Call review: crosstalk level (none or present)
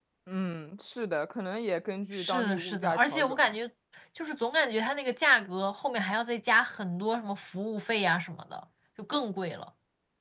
present